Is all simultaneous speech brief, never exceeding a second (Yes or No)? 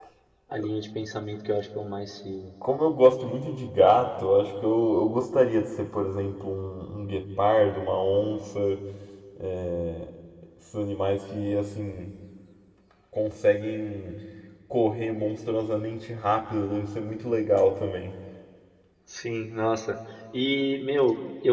Yes